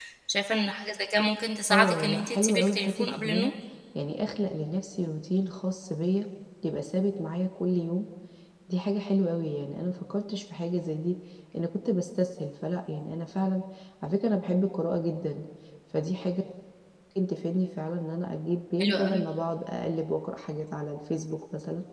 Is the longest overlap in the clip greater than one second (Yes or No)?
Yes